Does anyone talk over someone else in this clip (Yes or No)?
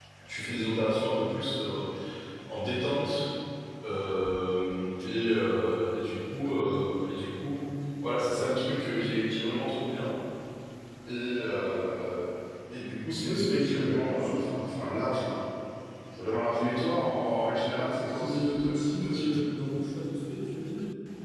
Yes